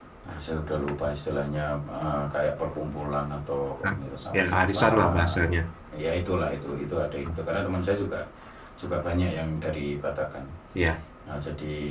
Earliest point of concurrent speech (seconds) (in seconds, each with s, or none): 4.3 s